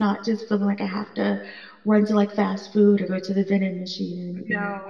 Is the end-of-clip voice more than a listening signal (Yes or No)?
Yes